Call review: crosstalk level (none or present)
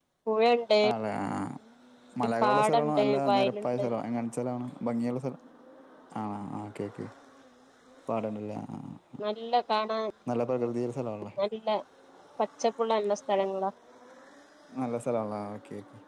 present